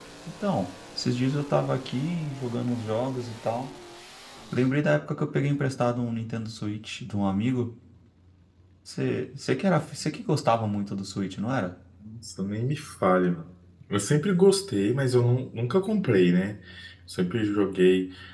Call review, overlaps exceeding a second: none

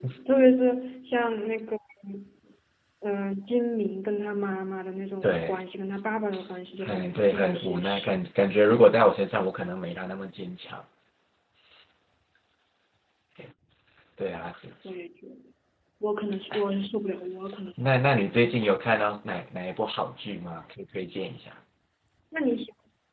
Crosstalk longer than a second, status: present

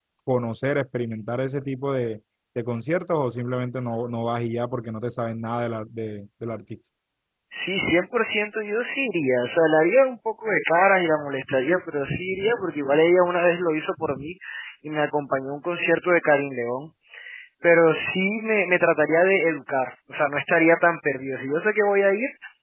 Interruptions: none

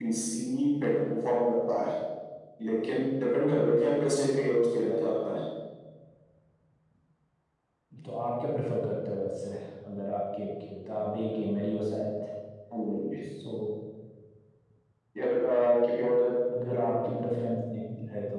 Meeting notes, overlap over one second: none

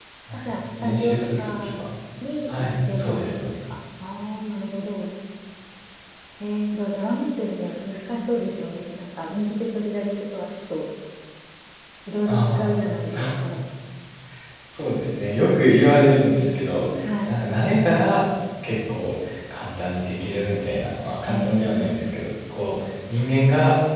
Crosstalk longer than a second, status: present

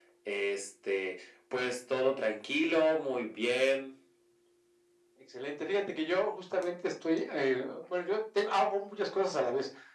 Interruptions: none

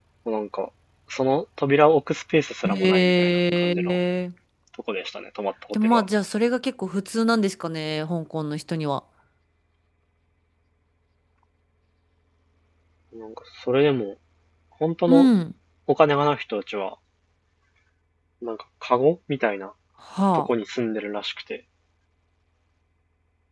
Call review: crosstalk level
present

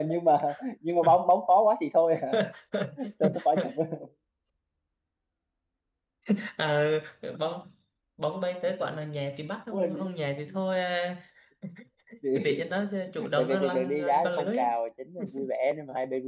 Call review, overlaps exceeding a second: present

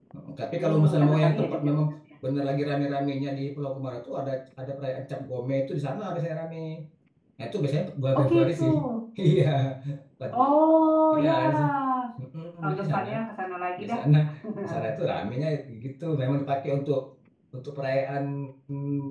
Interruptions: present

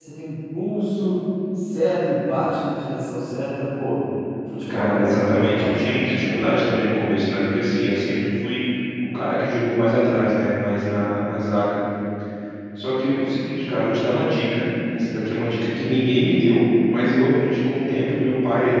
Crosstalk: present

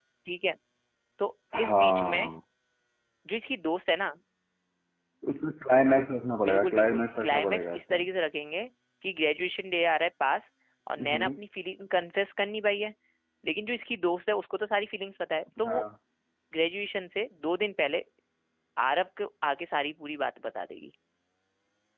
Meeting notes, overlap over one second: present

